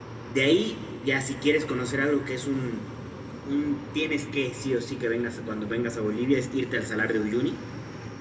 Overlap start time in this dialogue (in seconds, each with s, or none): none